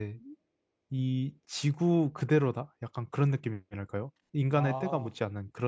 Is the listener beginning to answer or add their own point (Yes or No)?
No